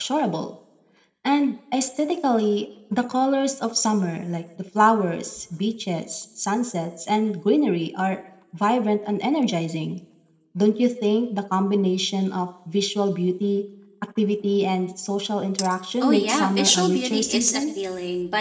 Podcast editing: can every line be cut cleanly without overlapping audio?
No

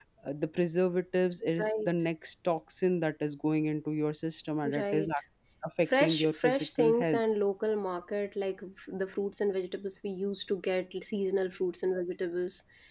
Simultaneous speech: Yes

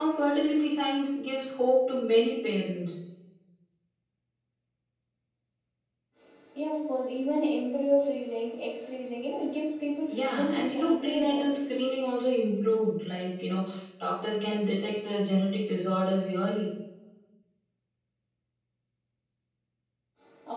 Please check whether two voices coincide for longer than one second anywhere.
Yes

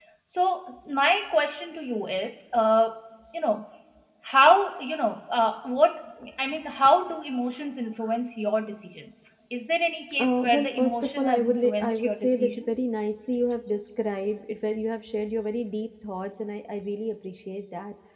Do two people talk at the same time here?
Yes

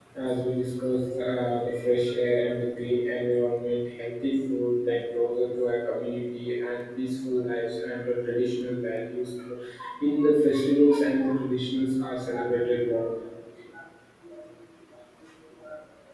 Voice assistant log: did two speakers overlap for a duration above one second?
No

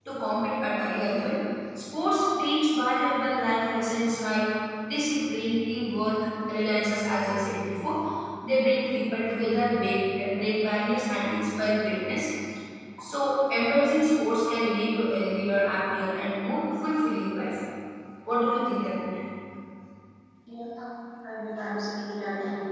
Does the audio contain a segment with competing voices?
No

